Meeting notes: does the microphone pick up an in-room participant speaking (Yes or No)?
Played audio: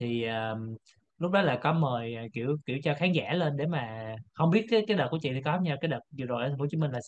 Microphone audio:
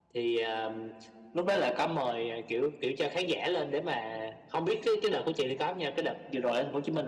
No